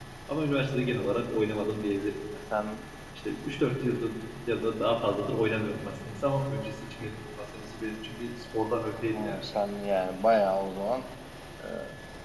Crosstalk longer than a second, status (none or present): none